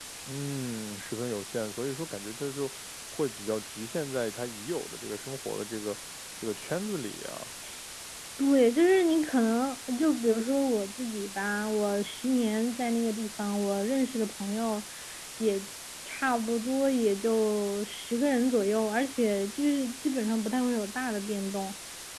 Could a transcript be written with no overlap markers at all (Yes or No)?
Yes